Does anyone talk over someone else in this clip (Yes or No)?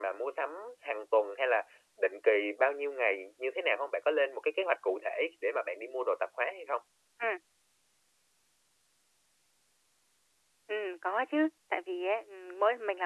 No